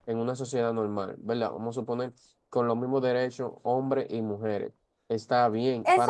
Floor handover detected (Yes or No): No